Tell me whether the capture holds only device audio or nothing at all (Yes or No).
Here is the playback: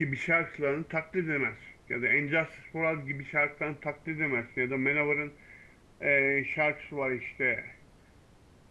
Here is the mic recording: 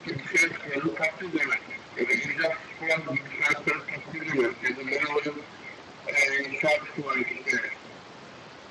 Yes